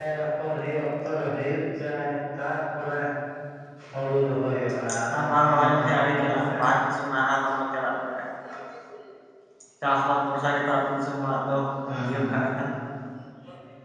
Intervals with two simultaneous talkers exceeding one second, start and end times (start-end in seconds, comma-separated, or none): 5.2-6.6